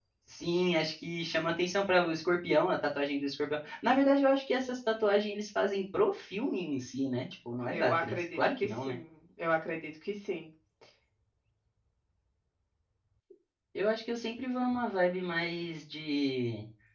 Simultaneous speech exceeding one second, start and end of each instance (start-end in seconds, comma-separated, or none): 7.7-9.0